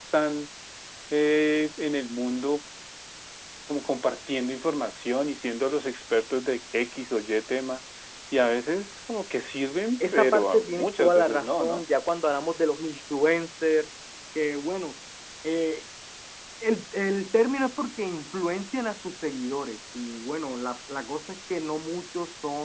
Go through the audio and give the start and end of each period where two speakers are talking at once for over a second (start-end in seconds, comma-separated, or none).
10.0-11.8